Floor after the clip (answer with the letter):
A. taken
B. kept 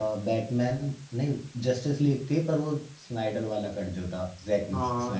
A